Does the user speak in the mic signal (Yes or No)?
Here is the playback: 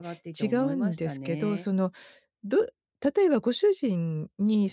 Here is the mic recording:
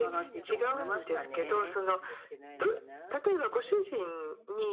Yes